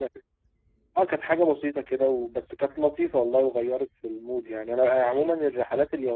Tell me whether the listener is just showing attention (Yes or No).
Yes